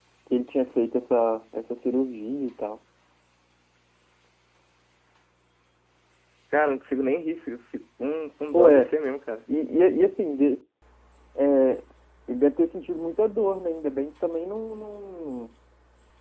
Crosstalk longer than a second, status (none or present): none